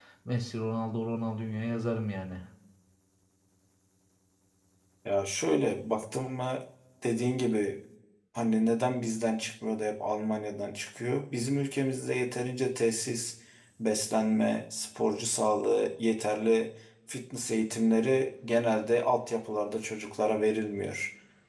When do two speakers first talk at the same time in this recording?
none

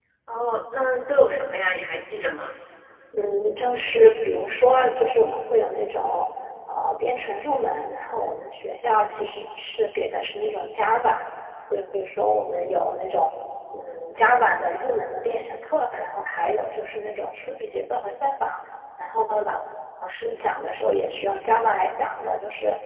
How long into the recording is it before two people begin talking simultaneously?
none

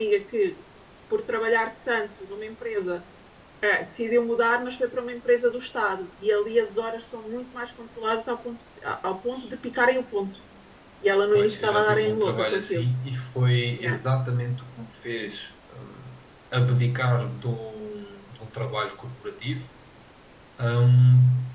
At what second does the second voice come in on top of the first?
11.3 s

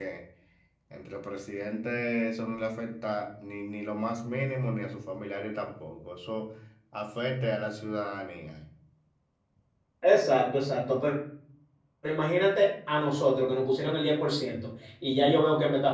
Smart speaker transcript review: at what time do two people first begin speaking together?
none

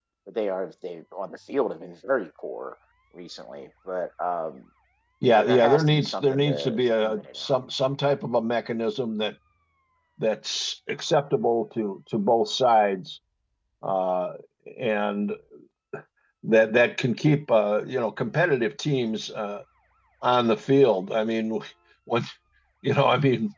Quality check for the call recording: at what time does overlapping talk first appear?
5.3 s

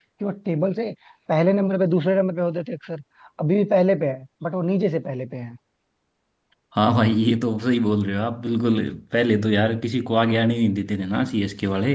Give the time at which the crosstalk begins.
none

